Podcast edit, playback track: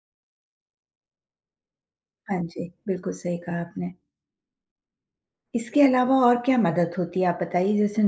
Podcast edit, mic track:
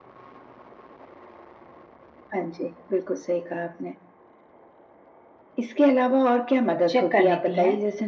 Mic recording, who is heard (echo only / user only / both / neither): both